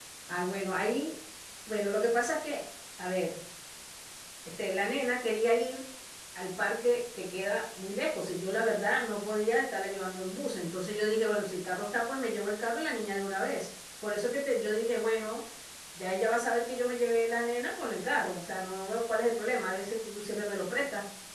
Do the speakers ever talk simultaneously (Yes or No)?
No